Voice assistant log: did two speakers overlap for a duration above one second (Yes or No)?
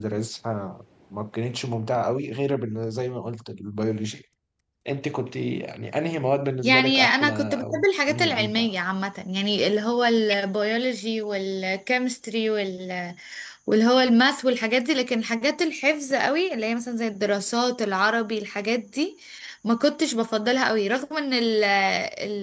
Yes